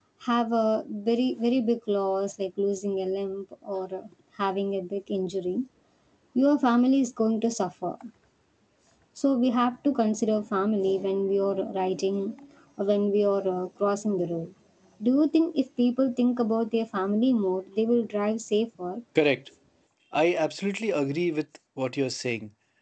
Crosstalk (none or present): none